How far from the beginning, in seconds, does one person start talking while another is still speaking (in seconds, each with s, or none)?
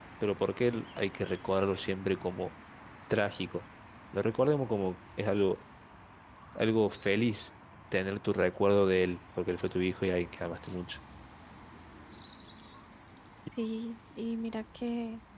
none